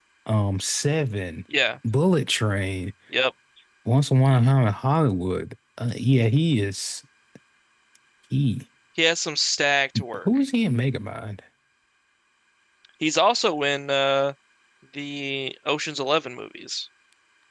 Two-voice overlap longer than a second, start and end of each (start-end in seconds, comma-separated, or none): none